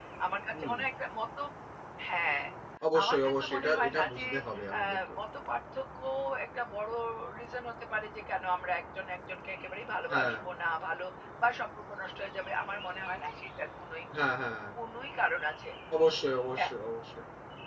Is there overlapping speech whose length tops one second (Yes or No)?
Yes